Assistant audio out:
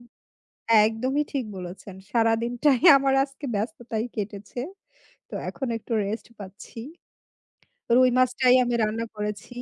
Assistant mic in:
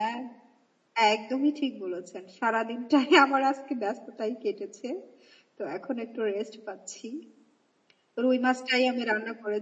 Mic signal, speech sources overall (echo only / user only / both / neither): echo only